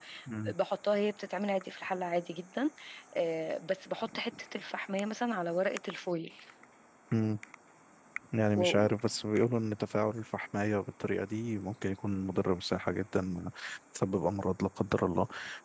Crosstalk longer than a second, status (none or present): none